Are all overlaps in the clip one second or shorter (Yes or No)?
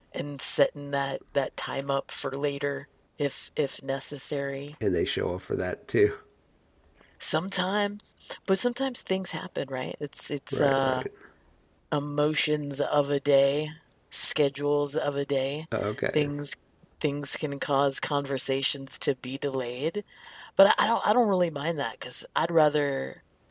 Yes